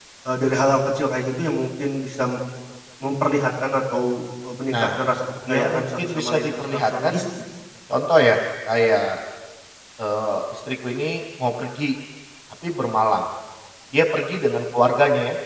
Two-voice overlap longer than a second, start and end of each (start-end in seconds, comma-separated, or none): 5.5-7.1